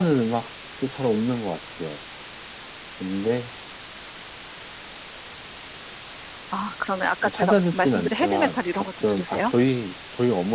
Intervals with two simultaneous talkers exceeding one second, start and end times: 7.2-9.5

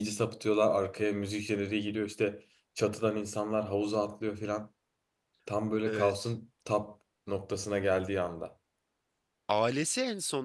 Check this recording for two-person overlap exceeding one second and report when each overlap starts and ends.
none

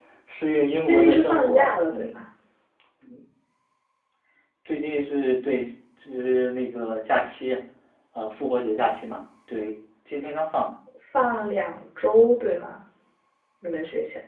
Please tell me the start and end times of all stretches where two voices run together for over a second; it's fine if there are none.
0.8-2.1

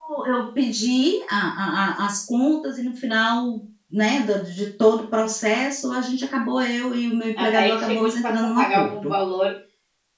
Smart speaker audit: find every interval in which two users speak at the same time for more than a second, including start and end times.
7.4-9.1

